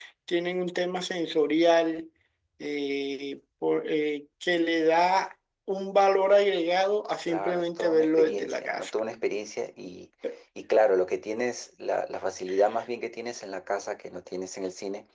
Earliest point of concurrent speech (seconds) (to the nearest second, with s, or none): 7 s